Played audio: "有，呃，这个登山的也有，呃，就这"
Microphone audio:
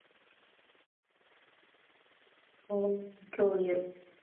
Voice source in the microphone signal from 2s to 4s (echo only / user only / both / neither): user only